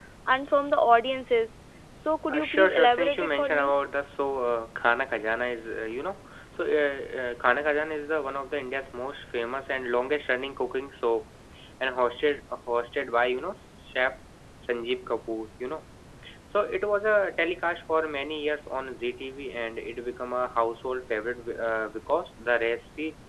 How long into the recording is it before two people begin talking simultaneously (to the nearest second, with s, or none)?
2 s